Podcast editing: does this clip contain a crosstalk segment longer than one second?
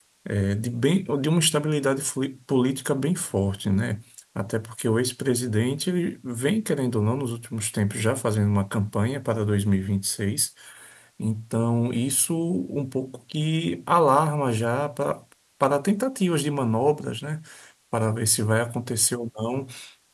No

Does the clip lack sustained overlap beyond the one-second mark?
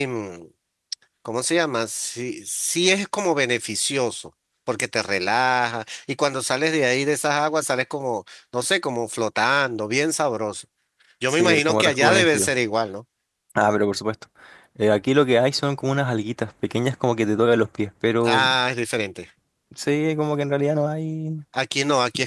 No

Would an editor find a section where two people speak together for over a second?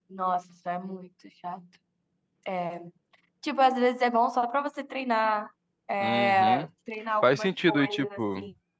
Yes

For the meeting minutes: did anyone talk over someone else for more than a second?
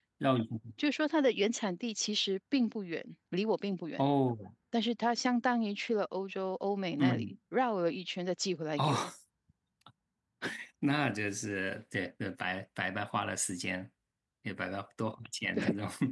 No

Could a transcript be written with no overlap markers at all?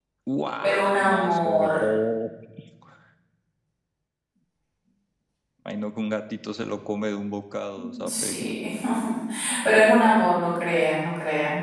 No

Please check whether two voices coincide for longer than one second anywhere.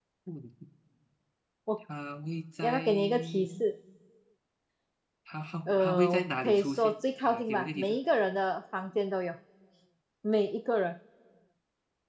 Yes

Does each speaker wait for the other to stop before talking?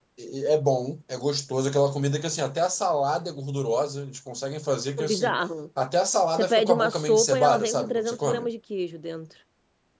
No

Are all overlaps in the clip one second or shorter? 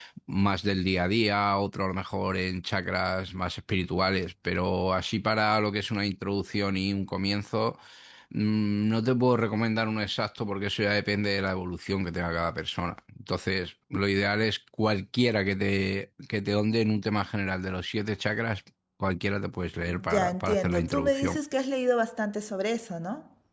No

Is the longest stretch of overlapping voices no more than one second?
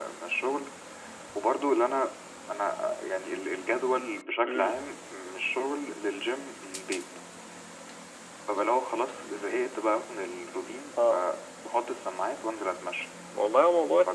Yes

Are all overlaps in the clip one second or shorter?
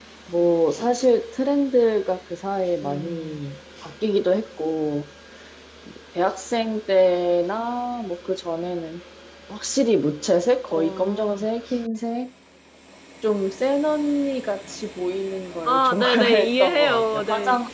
No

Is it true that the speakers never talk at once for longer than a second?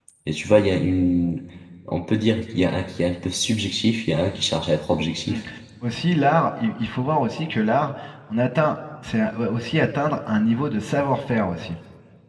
Yes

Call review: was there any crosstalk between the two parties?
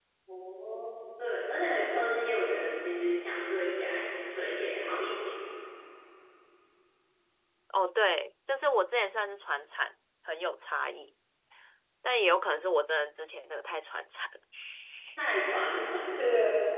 No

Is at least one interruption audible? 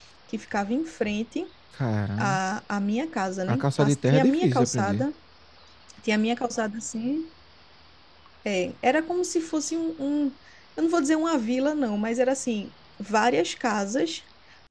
Yes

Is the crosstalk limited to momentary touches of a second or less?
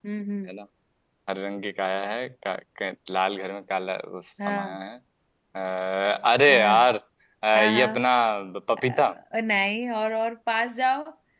Yes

